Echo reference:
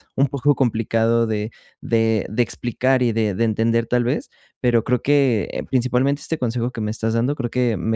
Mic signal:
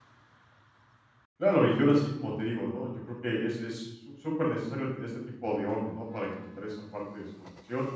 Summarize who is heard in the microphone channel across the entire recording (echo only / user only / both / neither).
user only